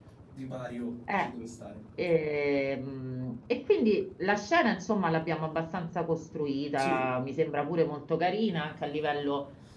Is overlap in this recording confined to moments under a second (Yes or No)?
Yes